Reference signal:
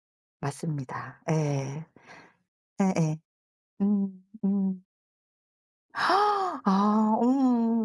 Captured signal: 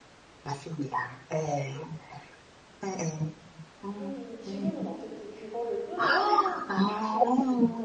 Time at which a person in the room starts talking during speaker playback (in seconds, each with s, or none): 3.8 s